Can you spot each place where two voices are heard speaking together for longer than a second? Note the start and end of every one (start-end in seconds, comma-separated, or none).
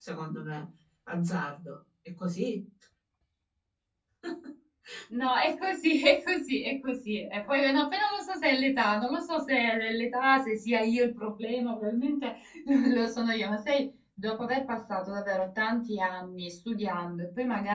none